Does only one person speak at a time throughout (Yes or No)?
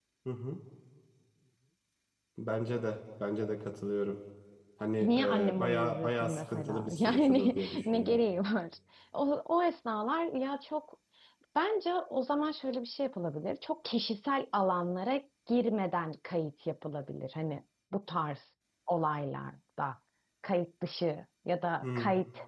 No